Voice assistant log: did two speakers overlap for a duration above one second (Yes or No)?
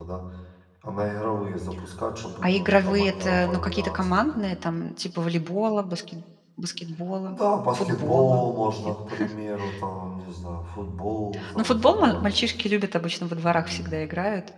Yes